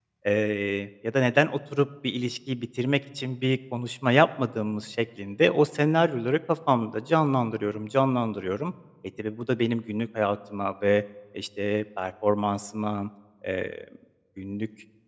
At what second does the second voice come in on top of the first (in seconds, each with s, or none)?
none